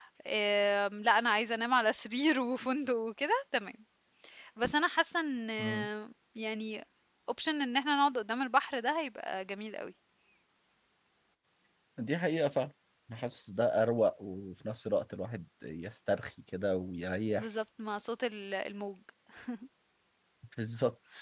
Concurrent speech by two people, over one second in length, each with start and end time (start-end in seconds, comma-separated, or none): none